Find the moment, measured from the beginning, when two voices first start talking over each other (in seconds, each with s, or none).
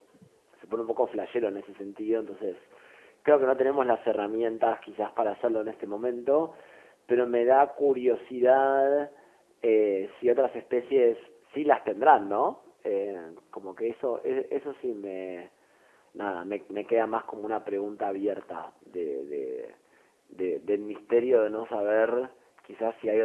none